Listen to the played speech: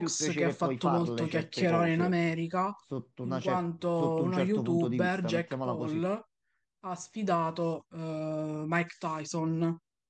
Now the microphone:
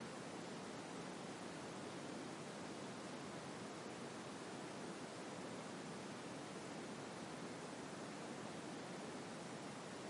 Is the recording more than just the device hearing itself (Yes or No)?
No